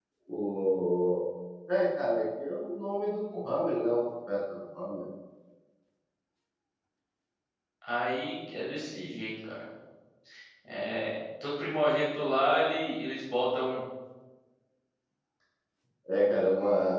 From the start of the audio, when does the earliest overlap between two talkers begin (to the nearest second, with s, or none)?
none